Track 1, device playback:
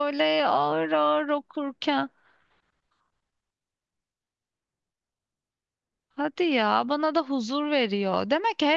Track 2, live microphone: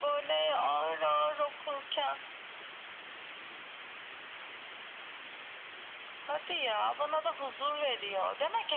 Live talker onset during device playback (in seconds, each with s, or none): none